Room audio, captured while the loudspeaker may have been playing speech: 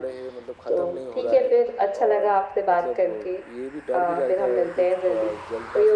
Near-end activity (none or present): none